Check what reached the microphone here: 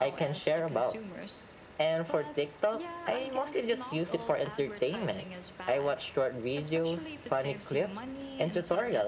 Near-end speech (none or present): present